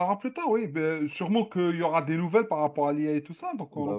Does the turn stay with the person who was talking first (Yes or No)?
No